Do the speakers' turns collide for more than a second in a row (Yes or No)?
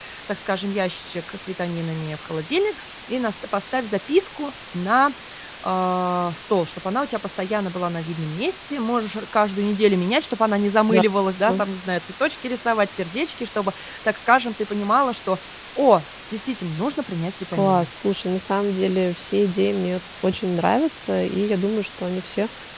No